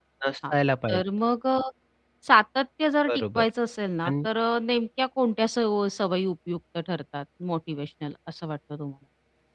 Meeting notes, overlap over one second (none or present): none